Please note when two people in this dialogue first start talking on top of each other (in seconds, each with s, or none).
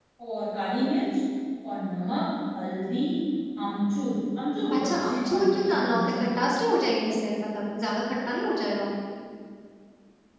4.7 s